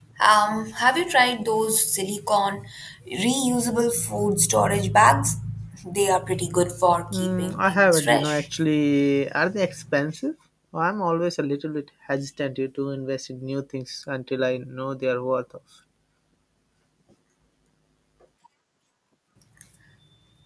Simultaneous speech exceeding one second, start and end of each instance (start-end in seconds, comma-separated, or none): 7.1-8.4